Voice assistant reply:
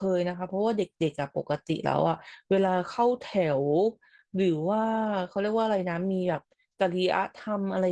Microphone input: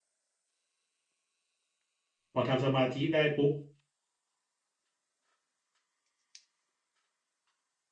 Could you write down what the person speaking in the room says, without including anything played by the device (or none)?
พอทำสมาธิได้ปุ๊บ